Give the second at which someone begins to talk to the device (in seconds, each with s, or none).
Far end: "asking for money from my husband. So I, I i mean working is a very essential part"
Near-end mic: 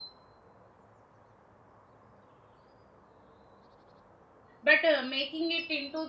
4.6 s